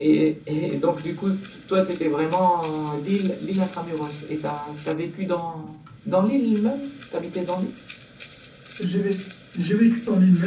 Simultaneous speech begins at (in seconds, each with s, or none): none